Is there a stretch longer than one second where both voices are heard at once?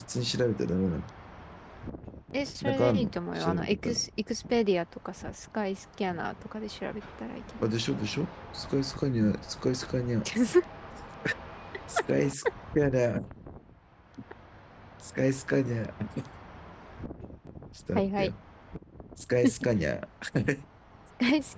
Yes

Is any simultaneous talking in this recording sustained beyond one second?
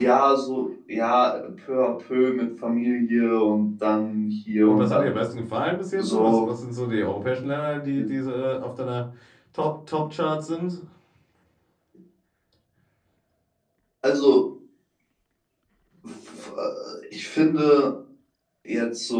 No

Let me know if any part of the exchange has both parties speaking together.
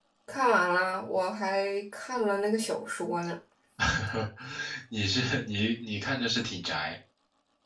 No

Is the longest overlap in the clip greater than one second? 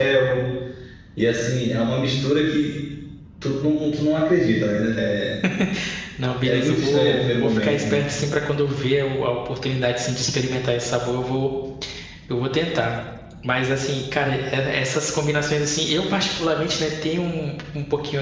Yes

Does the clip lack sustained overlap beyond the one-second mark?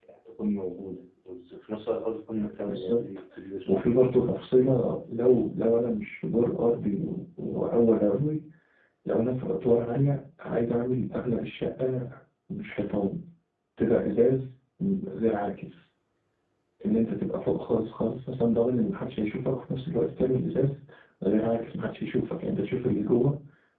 Yes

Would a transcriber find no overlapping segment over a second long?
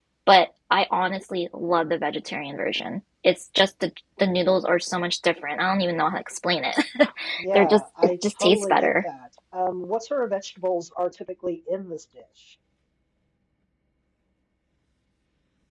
No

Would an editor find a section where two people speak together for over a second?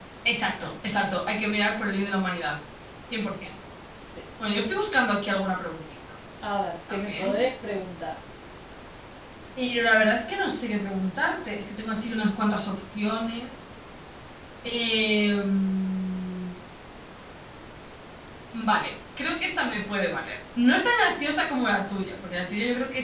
No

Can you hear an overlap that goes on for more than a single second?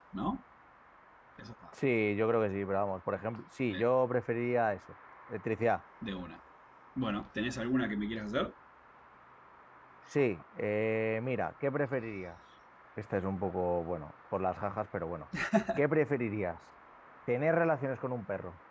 No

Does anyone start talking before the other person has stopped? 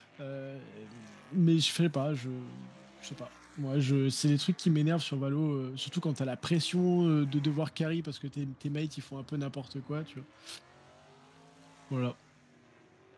No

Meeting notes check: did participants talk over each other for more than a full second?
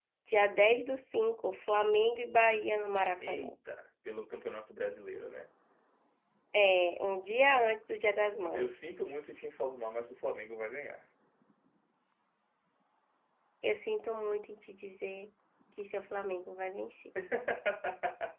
No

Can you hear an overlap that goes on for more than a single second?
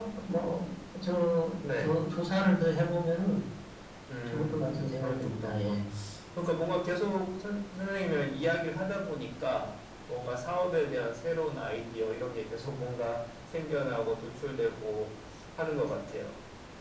Yes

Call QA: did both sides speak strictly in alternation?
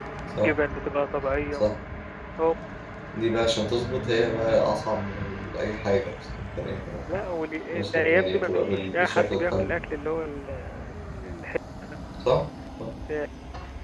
No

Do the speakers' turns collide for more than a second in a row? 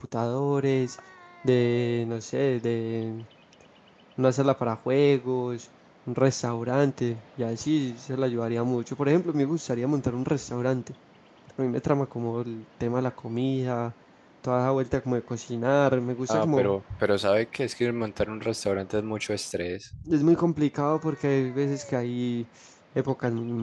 No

